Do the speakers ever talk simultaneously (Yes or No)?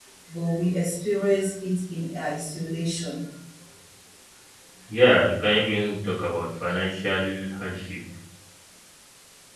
No